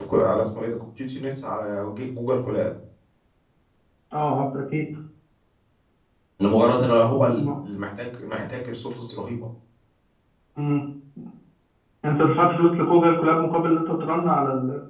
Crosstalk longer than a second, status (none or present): none